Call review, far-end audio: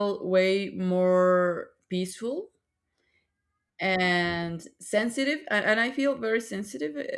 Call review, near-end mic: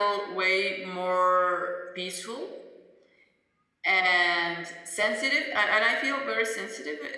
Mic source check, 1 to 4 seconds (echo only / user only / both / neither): echo only